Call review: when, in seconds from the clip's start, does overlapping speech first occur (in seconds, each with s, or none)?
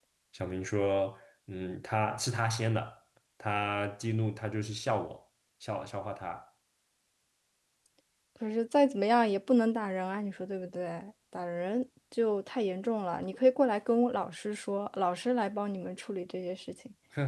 none